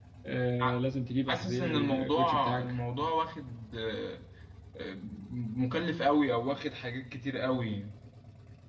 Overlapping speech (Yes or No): Yes